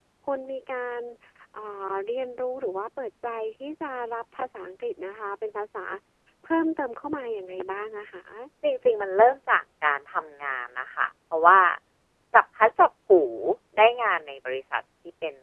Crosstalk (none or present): none